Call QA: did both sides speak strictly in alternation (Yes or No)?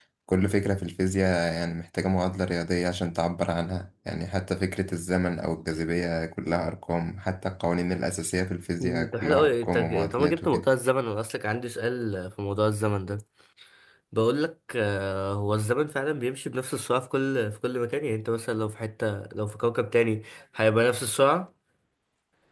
No